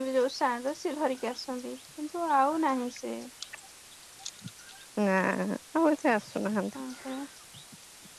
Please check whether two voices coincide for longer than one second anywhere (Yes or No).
No